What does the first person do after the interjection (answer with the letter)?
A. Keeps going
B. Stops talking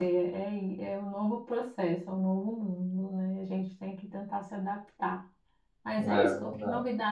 A